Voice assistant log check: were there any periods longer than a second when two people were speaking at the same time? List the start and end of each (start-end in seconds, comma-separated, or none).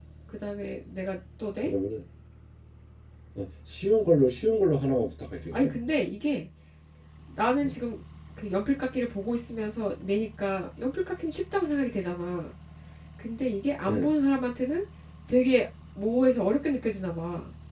none